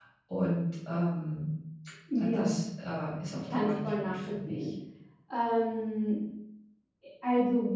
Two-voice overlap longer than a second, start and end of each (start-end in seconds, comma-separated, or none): 3.5-4.7